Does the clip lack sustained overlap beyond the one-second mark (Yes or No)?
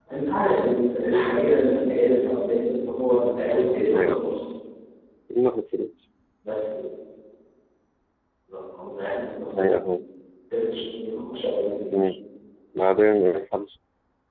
Yes